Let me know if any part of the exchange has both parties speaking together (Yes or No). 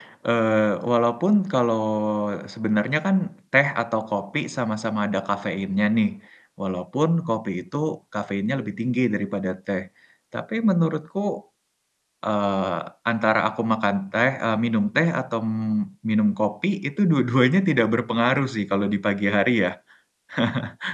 No